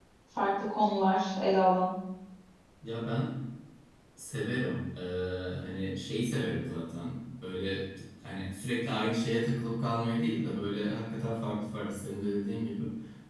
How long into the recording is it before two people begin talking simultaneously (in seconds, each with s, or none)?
none